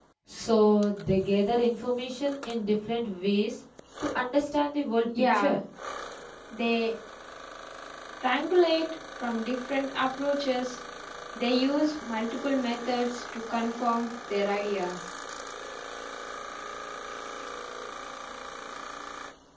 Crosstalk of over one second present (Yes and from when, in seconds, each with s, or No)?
No